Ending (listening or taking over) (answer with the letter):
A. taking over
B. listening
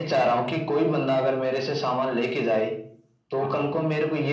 B